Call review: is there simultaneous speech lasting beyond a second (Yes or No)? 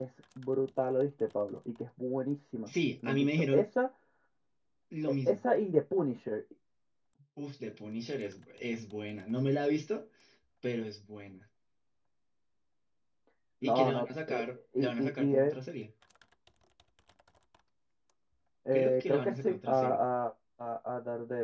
Yes